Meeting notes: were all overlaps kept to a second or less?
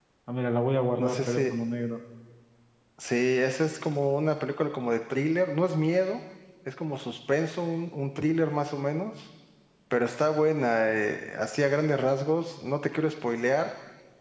Yes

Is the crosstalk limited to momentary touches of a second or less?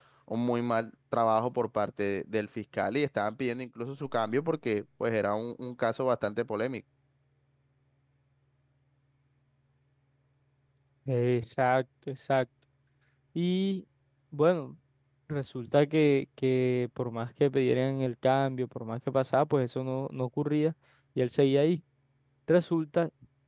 Yes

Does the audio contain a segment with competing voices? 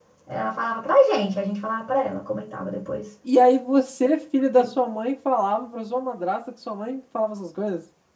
No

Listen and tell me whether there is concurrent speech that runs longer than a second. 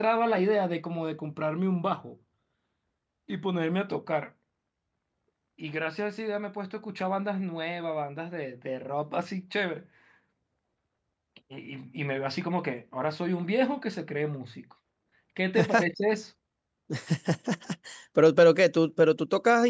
No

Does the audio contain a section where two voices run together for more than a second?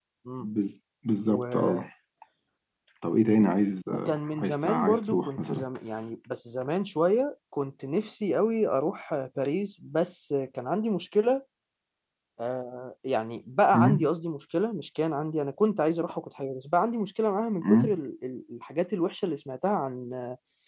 Yes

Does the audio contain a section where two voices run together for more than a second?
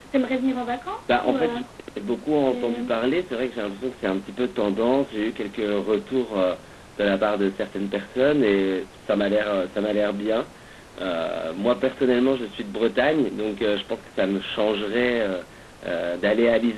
No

